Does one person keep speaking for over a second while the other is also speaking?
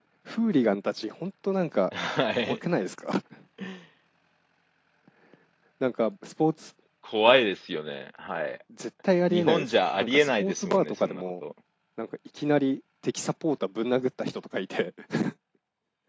Yes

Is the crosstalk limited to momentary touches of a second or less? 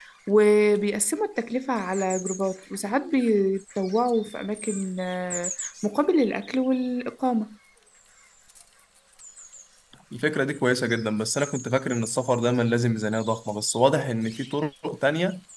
Yes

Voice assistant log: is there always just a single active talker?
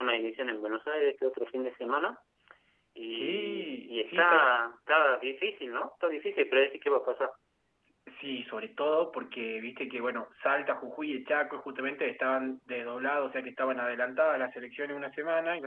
No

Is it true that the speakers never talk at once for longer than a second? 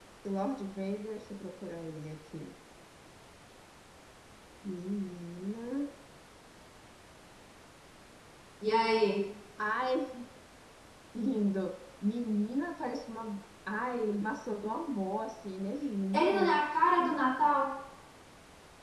Yes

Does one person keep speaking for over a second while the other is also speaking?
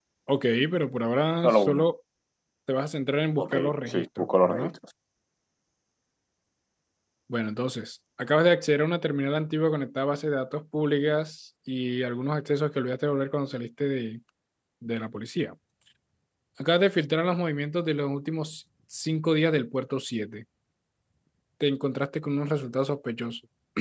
Yes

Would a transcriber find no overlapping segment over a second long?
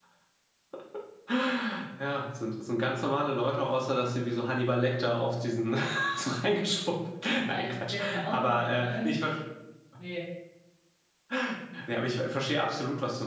No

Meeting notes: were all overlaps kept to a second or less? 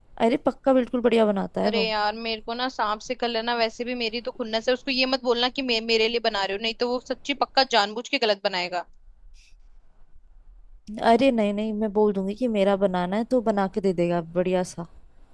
Yes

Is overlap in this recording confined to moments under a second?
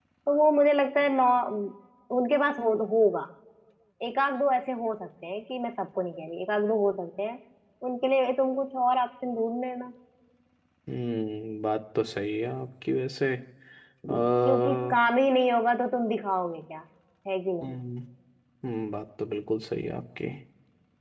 Yes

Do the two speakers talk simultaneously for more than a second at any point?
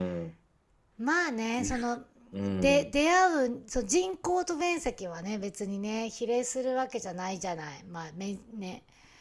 No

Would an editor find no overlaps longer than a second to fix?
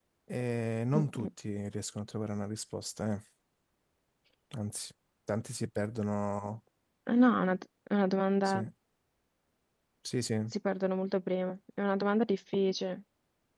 Yes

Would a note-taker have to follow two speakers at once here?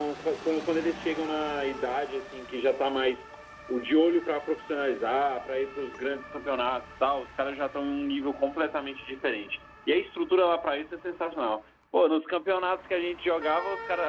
No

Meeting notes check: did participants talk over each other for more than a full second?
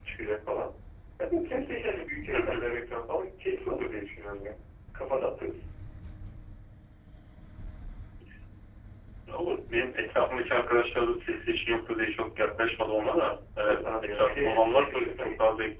Yes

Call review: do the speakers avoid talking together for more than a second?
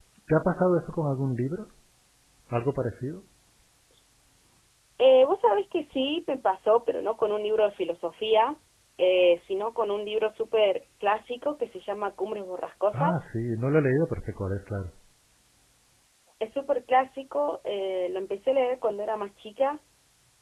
Yes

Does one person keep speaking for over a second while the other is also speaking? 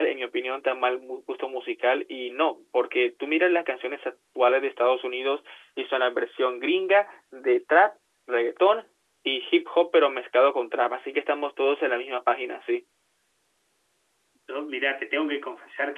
No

